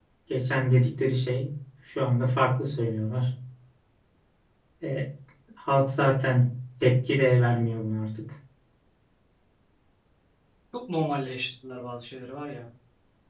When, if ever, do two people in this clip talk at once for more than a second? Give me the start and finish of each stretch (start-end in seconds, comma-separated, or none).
none